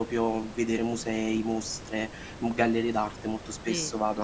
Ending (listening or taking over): taking over